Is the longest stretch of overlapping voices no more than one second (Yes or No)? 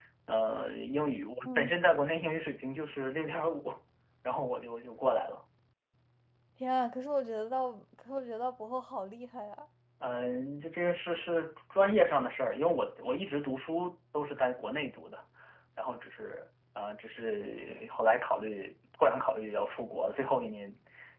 Yes